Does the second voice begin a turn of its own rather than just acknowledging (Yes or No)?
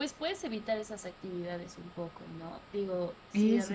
No